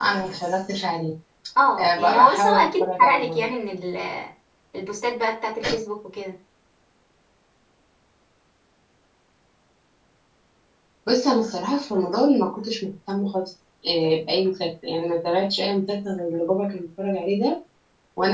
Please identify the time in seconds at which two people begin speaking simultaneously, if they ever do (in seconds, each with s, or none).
1.8 s